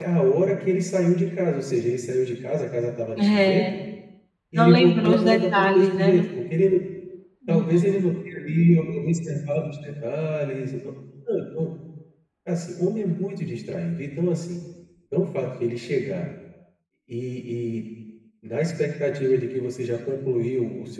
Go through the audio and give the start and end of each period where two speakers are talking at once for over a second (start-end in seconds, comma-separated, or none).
4.5-6.2